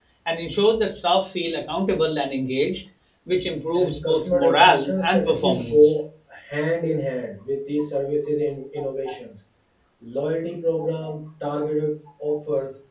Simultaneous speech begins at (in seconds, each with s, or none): 3.8 s